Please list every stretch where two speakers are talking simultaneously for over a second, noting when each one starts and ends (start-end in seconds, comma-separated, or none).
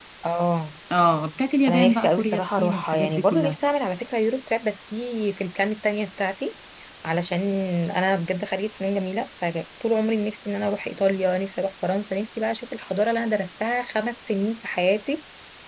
1.7-3.6